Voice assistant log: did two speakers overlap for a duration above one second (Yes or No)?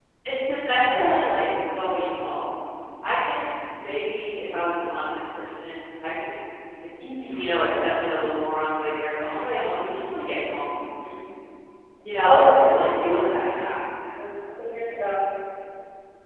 Yes